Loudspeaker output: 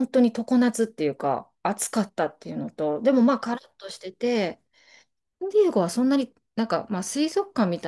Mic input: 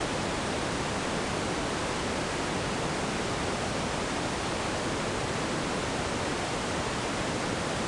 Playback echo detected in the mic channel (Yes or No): No